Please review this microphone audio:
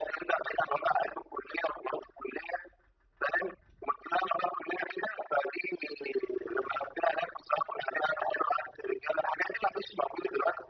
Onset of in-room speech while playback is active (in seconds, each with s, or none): none